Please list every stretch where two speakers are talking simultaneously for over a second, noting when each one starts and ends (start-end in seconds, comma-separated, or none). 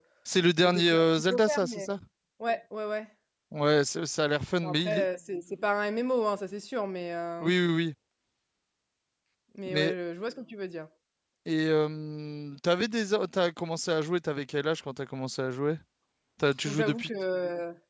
0.6-1.9